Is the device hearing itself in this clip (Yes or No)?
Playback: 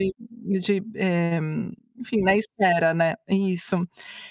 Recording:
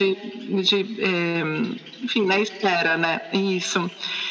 Yes